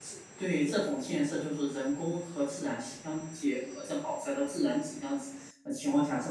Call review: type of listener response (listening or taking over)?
listening